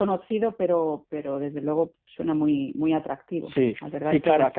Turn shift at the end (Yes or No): Yes